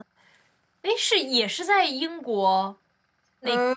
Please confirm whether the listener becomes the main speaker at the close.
Yes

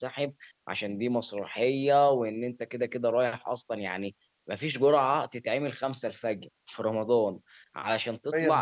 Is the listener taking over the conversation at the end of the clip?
No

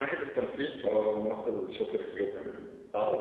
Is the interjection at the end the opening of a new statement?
Yes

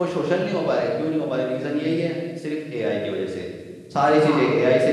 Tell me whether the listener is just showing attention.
Yes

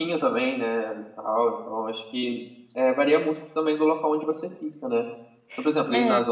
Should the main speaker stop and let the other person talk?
No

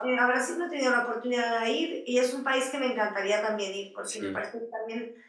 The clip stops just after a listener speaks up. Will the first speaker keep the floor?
Yes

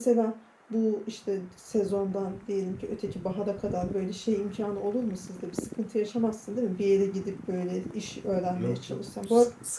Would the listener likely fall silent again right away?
No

